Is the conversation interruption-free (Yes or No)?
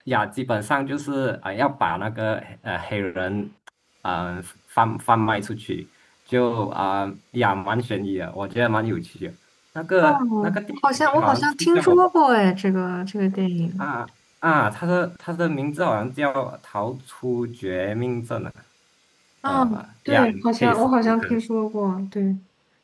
No